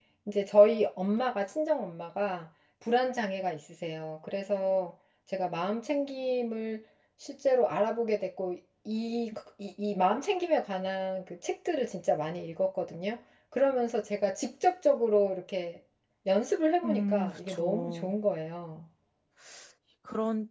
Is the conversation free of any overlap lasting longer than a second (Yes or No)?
No